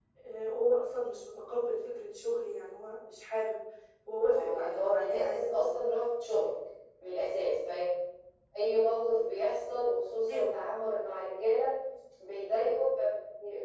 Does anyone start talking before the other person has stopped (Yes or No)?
Yes